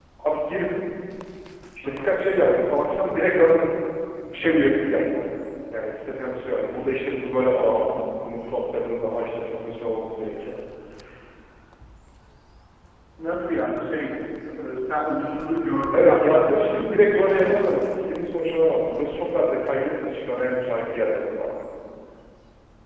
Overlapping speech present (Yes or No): Yes